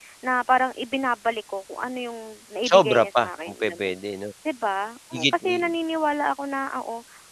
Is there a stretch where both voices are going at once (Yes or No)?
Yes